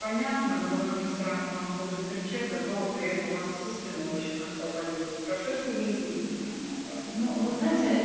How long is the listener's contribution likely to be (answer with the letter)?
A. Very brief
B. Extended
B